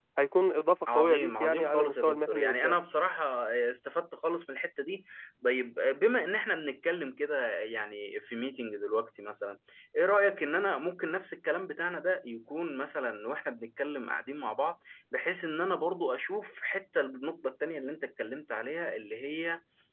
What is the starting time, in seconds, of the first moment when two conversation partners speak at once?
0.9 s

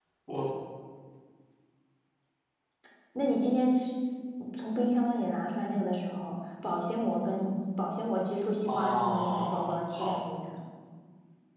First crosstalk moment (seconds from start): 8.7 s

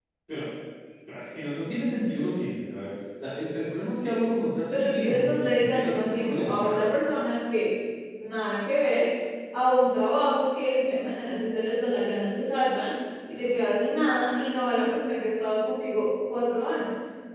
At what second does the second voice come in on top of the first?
4.7 s

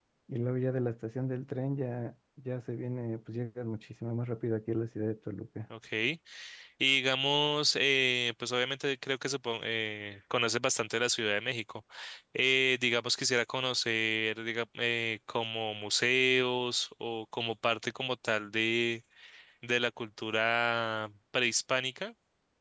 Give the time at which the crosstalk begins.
none

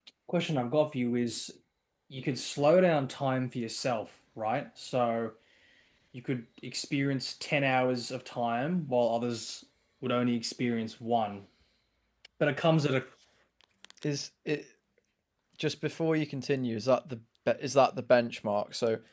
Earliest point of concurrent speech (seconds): none

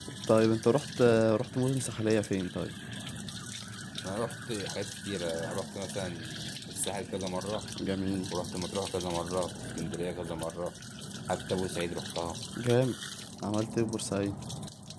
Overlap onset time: none

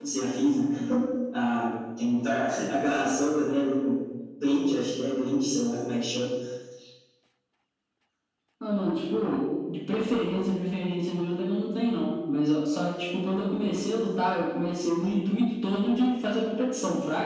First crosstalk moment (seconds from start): none

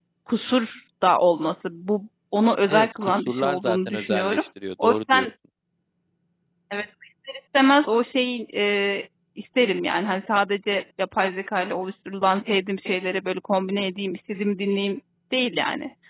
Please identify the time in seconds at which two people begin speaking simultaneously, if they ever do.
2.7 s

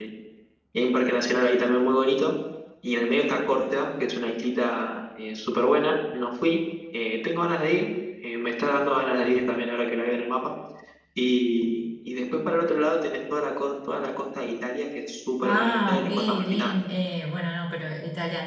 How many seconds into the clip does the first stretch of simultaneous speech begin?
15.4 s

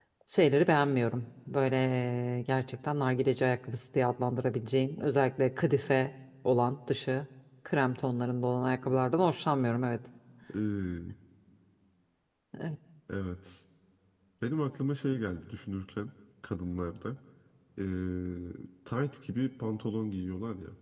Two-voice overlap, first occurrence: none

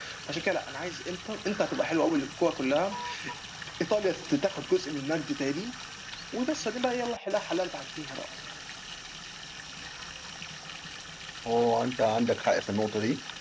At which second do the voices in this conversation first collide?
none

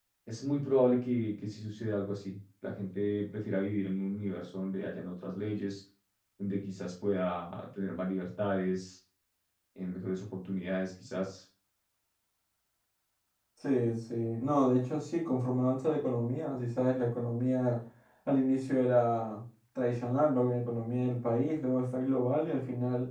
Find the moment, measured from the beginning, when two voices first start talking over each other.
none

